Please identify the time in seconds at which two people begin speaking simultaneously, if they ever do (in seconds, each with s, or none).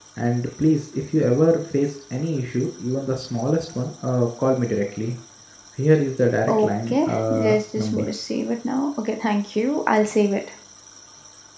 6.5 s